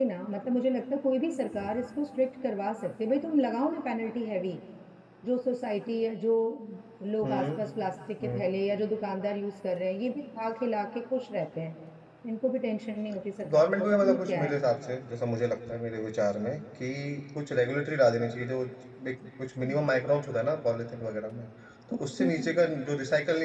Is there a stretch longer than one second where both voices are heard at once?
Yes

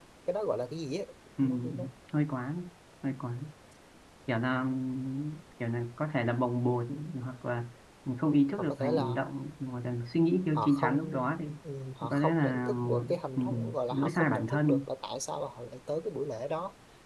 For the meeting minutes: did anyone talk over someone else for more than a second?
Yes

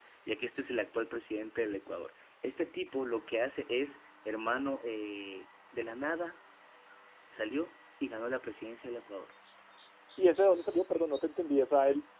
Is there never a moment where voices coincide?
Yes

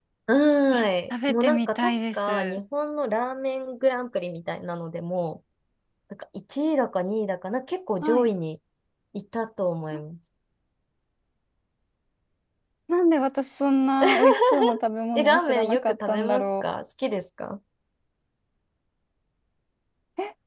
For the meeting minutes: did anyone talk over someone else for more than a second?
Yes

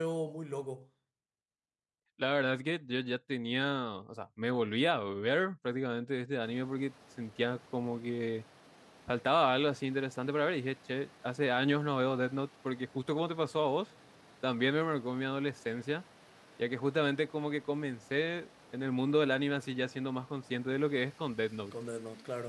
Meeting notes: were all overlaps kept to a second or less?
Yes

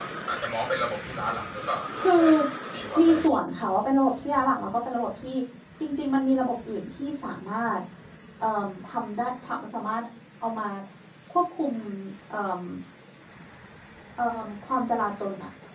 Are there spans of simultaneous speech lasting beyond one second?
No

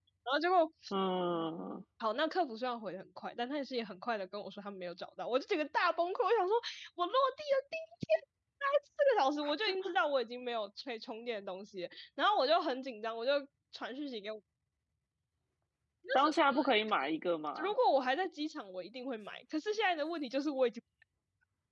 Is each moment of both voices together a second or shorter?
Yes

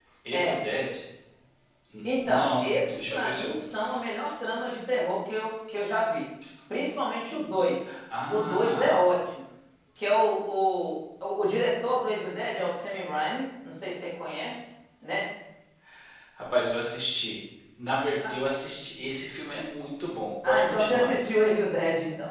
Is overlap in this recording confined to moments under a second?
No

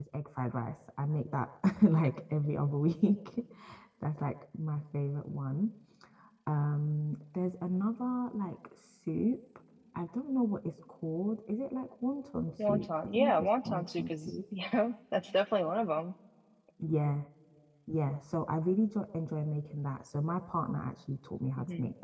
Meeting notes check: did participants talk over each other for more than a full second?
Yes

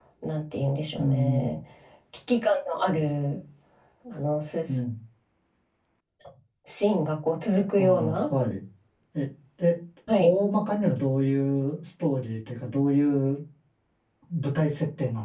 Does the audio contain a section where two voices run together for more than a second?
No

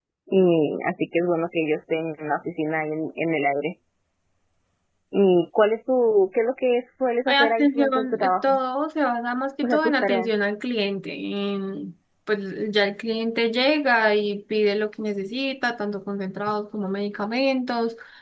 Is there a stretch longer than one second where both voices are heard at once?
Yes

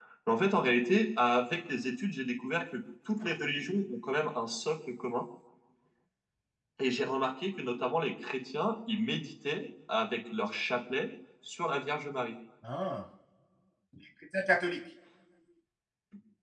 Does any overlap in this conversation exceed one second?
No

